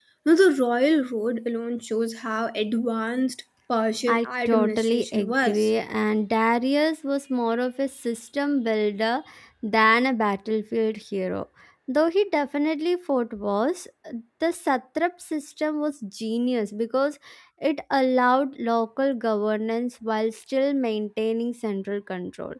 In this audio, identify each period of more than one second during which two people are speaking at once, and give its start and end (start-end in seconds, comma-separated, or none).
4.1-5.7